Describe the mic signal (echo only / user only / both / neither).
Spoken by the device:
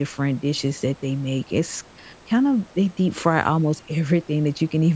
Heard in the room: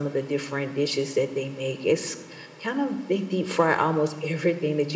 echo only